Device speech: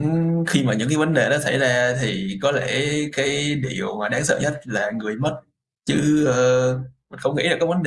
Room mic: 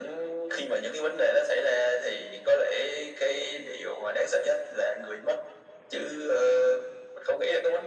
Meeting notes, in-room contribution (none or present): none